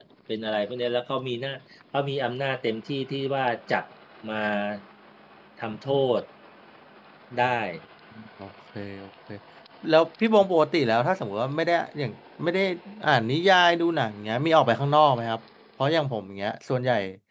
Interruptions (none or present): none